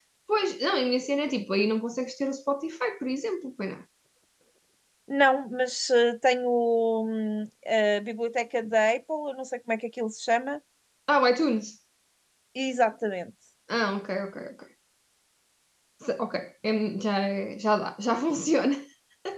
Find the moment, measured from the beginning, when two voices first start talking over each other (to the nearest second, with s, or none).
none